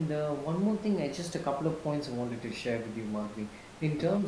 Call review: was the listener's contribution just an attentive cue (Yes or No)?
Yes